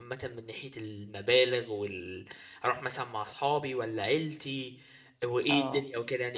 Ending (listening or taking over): taking over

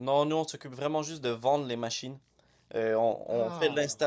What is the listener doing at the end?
listening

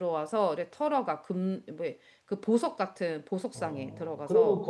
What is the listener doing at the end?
taking over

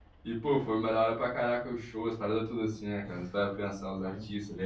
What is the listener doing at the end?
taking over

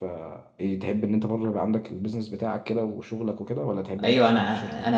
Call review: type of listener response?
taking over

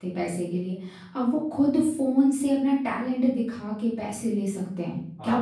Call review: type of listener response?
taking over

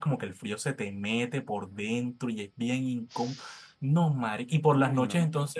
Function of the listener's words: listening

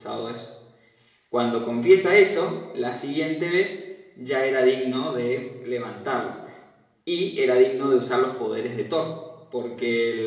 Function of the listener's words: listening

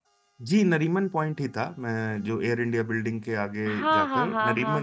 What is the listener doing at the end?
taking over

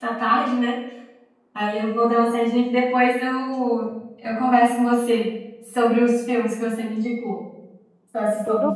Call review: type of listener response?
listening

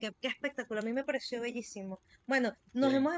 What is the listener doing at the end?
listening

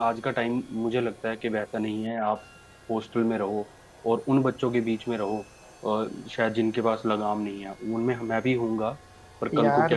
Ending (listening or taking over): taking over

